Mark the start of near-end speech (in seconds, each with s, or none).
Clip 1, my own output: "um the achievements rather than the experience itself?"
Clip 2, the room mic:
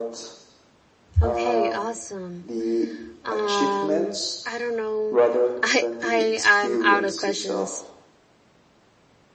1.2 s